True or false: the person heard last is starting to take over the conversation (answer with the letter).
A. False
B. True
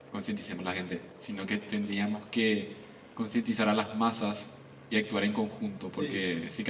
A